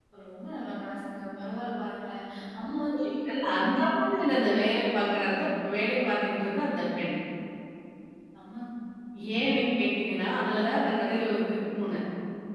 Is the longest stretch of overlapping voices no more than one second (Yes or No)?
Yes